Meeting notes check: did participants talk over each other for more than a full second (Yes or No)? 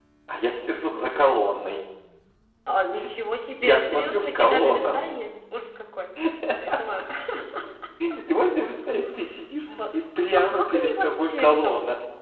Yes